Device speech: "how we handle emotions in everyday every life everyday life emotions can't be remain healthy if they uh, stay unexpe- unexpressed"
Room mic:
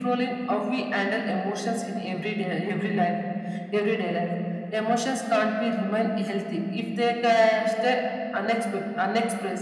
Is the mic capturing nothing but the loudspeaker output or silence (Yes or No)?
Yes